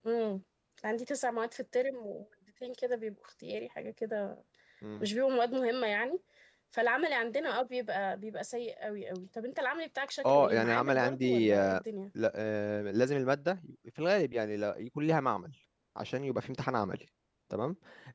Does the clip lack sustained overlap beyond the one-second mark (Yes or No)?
No